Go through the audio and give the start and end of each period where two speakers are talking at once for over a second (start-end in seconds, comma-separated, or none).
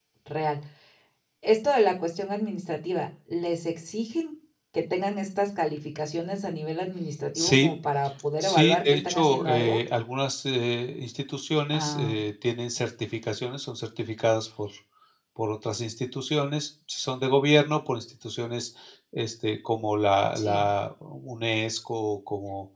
8.4-9.8